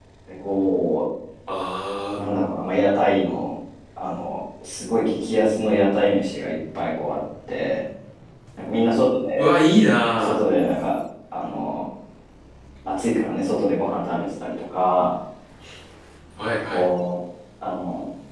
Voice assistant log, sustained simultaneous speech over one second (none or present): none